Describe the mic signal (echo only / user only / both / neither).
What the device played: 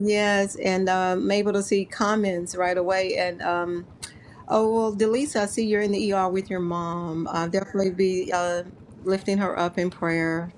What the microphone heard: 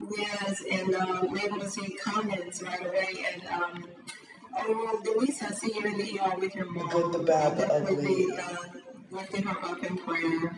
both